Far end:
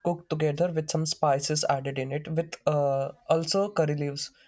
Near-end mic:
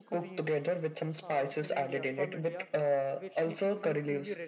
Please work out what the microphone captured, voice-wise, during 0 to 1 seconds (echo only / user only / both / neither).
both